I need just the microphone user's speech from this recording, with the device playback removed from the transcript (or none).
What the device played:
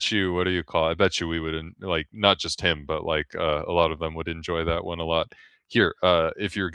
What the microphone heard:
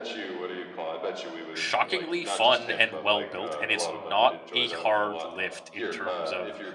shockingly fun and well built and it's not a hard lift in terms of